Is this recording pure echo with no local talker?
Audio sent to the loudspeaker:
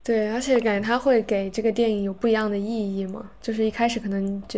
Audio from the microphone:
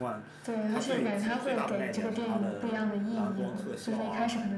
No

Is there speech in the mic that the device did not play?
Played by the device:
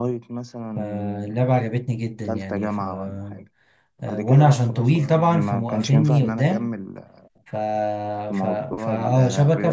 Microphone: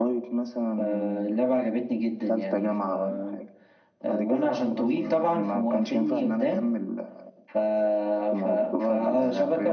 No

